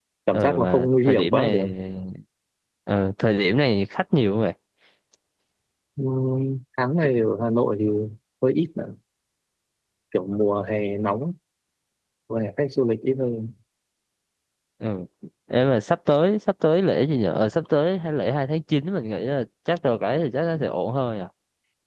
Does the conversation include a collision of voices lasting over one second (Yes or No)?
Yes